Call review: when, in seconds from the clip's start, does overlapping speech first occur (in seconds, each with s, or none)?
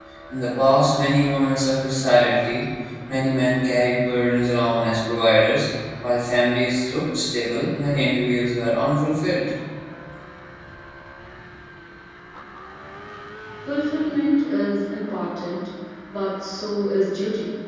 none